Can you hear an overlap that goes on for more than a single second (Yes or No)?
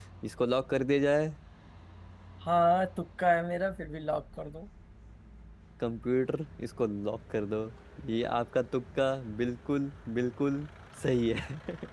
No